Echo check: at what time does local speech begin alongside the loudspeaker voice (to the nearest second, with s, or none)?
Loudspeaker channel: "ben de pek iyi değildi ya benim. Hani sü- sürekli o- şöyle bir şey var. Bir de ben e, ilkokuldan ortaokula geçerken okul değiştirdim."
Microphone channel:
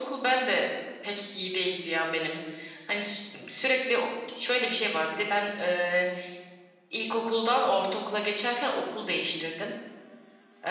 none